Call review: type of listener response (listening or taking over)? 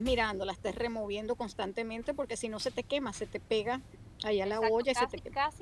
taking over